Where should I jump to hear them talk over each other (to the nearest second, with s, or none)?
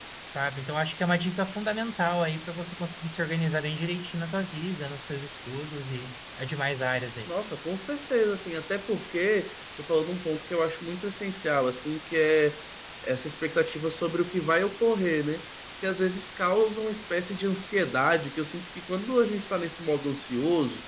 none